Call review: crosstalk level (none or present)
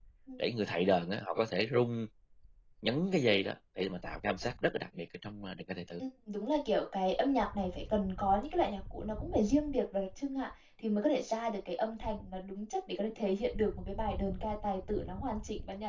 none